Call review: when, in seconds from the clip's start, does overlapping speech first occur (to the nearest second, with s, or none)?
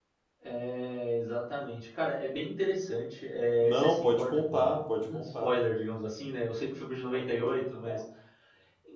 4 s